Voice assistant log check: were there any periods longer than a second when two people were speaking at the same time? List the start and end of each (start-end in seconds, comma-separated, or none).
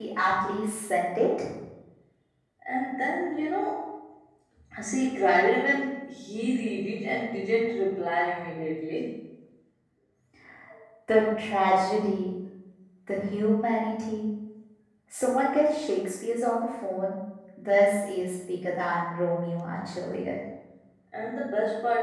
none